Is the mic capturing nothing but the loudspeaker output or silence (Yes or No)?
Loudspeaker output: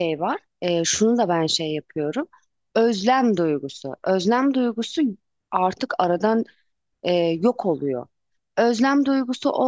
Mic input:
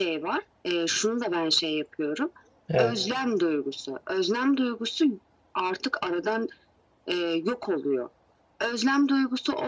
No